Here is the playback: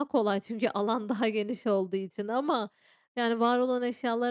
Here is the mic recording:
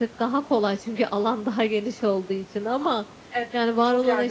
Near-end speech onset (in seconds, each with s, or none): 3.3 s